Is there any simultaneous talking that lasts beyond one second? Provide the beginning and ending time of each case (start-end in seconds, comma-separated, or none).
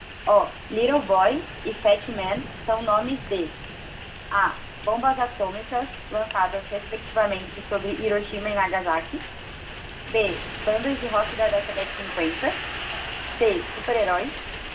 none